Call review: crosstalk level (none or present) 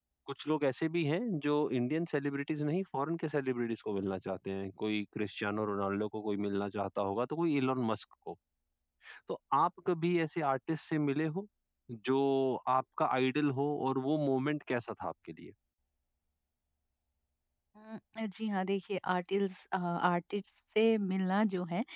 none